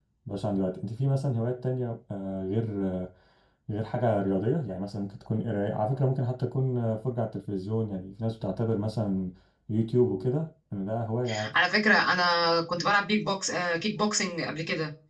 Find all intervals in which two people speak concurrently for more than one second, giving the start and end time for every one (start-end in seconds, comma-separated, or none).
none